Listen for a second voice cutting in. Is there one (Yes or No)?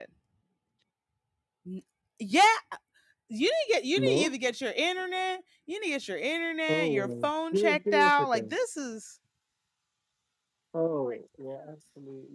Yes